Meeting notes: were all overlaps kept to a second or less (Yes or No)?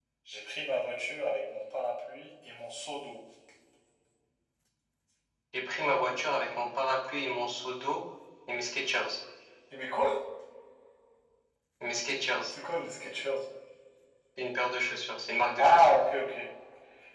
Yes